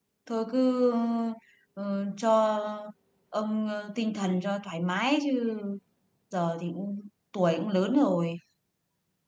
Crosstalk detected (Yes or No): No